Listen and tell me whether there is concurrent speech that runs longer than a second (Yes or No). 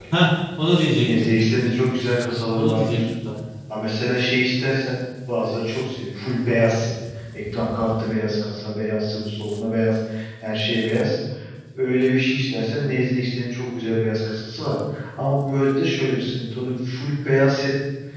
No